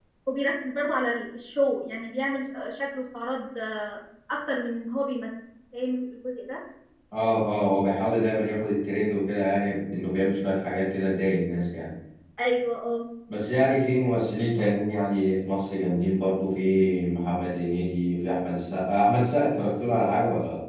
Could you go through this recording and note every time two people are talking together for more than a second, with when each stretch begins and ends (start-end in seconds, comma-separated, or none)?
none